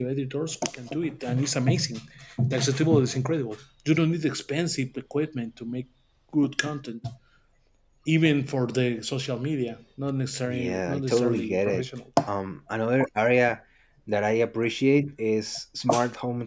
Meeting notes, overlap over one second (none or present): present